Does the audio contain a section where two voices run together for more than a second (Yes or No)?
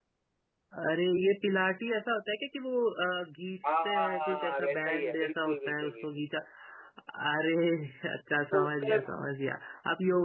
Yes